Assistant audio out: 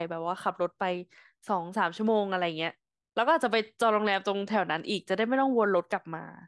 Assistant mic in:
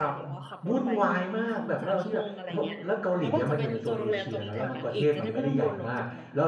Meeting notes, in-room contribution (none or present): present